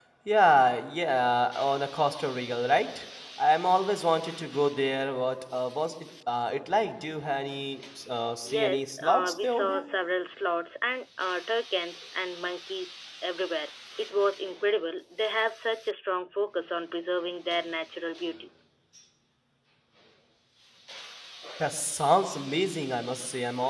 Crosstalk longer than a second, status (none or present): present